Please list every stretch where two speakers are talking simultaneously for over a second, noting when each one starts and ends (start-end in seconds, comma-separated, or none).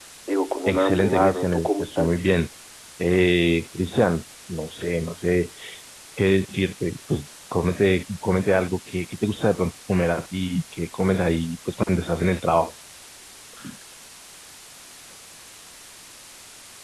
0.7-2.2